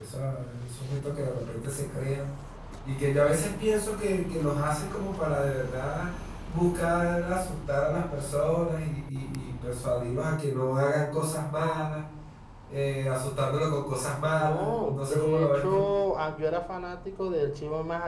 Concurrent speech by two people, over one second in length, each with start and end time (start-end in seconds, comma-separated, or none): 14.4-15.9